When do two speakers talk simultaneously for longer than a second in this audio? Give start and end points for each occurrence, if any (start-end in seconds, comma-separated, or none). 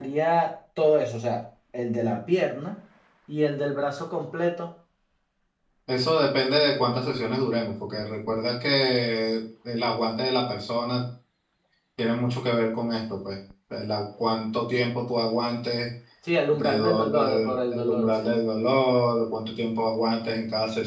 16.5-18.3